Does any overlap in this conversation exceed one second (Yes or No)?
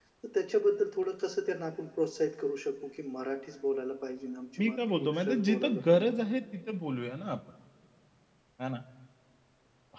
Yes